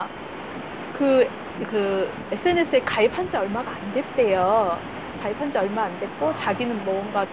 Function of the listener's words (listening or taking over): listening